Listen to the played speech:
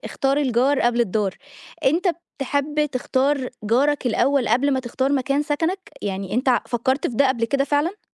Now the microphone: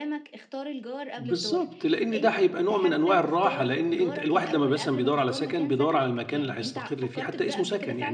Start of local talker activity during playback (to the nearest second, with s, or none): 1 s